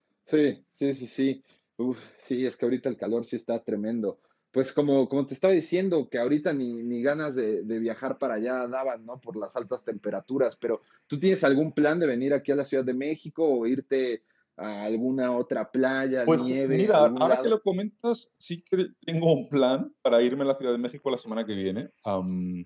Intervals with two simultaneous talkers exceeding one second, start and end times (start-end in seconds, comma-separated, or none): 16.3-17.6